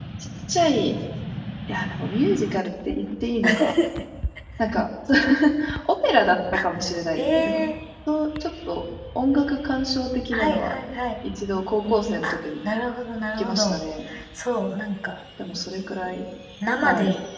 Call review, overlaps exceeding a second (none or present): none